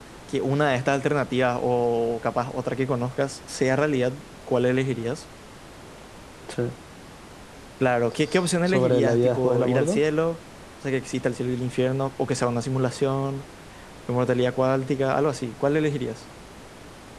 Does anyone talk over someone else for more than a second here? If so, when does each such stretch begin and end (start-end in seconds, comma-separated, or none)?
8.7-10.0